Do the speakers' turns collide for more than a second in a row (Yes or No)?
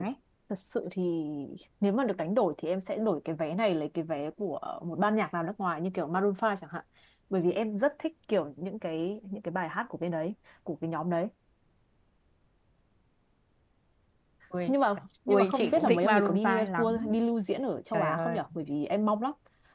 Yes